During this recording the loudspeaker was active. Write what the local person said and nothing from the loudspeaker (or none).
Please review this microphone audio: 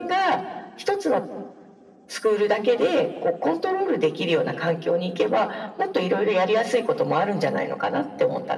none